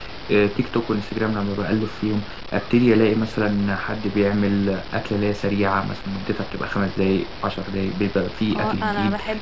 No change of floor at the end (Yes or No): No